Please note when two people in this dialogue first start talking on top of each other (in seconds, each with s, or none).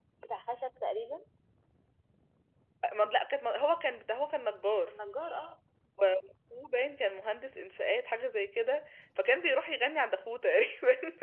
none